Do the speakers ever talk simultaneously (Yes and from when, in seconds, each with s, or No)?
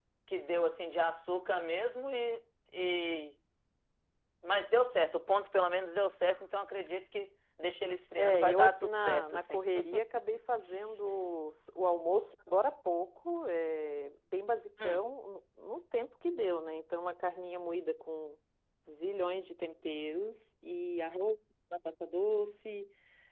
Yes, from 8.2 s